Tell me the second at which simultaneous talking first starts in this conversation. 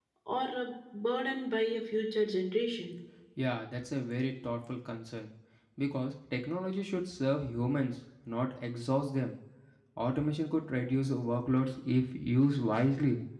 none

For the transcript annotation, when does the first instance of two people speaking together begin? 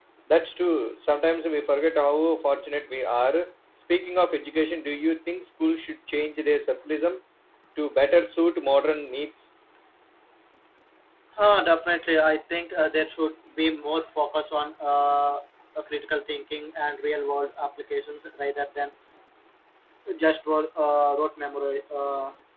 none

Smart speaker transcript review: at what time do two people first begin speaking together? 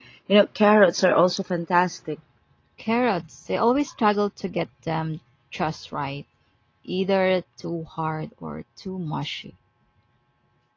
none

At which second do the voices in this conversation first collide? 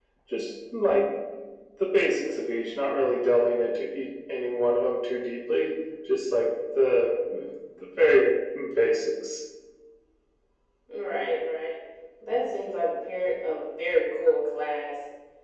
none

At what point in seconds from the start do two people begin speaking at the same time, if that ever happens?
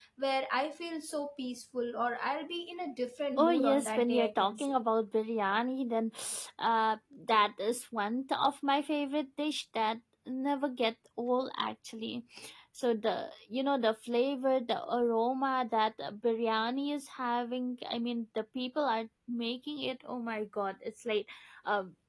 3.4 s

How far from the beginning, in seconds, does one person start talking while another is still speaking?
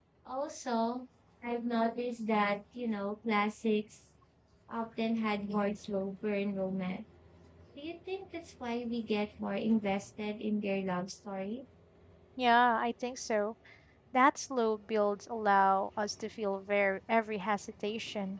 none

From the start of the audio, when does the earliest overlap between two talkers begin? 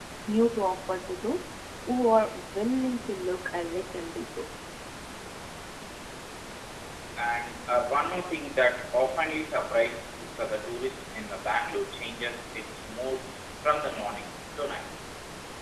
none

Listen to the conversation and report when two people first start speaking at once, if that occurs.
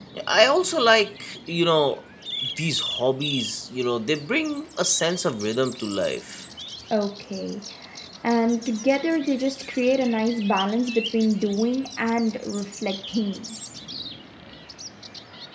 none

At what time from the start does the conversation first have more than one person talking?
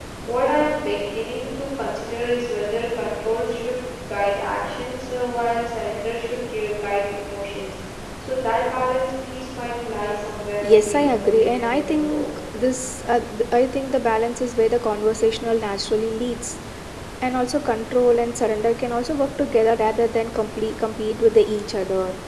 10.6 s

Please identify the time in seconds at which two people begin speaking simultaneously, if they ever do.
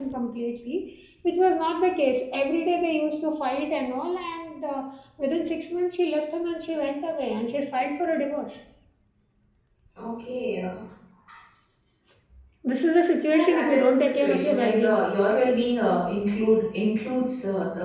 13.3 s

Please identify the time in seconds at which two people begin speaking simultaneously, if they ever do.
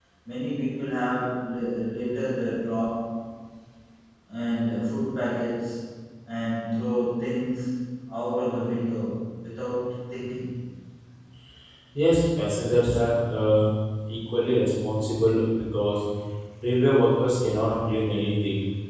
none

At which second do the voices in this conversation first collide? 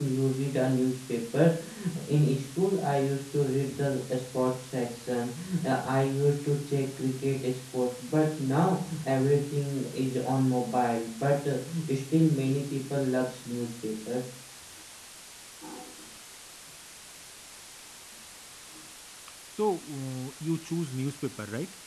none

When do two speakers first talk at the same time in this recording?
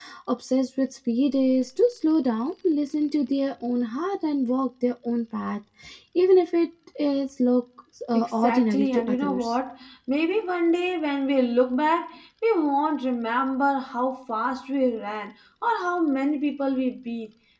8.1 s

